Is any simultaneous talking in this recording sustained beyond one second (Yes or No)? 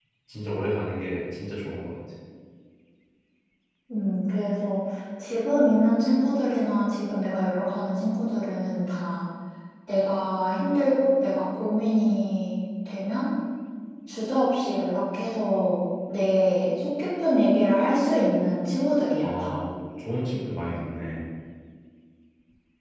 No